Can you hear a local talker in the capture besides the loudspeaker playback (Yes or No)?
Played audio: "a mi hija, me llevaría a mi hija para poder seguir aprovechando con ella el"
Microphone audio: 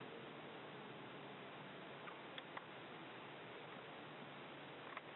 No